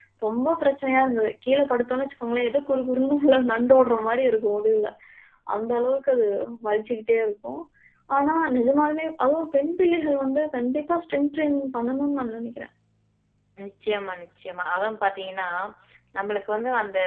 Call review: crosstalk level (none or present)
none